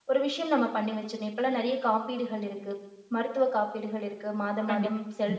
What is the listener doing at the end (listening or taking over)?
listening